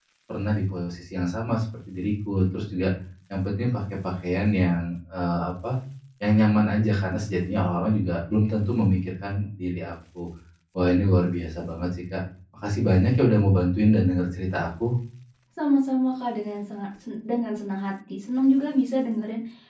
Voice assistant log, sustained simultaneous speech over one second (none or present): none